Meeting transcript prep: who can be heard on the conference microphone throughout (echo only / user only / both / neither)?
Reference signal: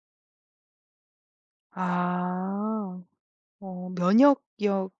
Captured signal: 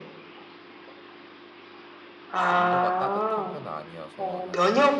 both